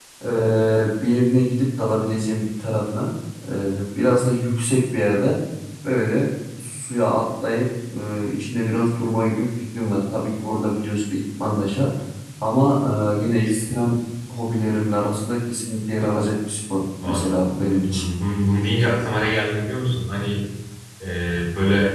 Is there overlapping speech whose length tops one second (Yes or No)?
No